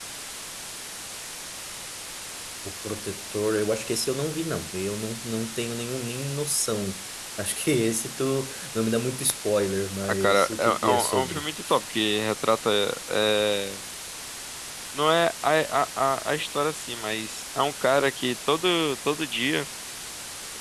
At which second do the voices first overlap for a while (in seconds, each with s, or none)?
10.0 s